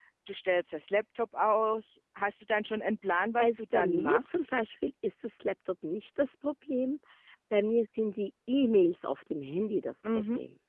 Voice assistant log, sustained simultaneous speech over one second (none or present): present